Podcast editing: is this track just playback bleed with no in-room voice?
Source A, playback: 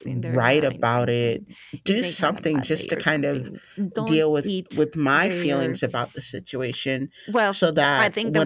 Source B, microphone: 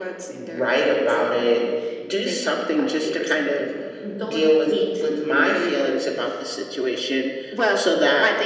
Yes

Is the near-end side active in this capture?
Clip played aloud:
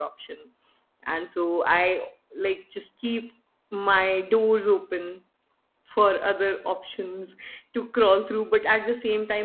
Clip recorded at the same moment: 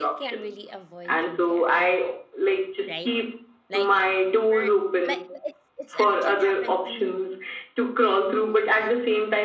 Yes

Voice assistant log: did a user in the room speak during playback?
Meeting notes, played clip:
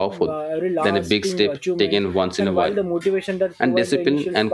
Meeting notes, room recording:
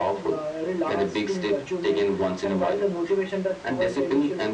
No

